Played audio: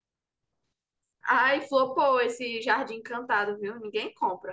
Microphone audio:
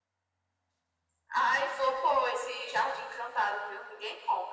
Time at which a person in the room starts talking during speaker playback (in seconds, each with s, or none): none